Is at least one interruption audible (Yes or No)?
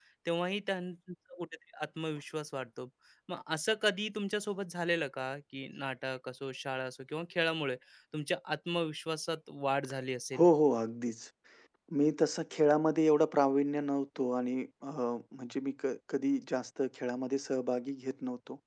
No